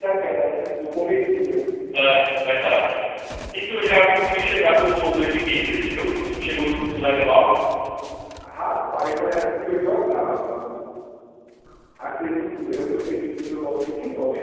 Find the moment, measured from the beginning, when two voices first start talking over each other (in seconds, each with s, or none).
none